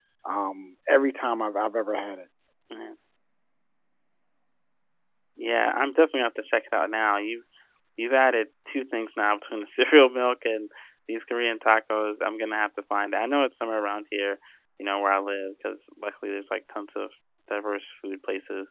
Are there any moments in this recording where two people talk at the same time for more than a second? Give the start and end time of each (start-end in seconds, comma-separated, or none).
none